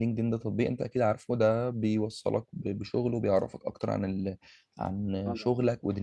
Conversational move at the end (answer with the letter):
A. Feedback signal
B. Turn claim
A